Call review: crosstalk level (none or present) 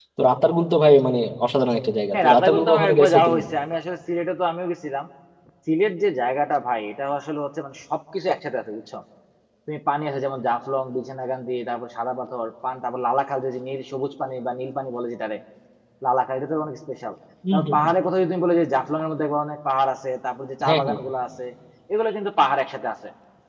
present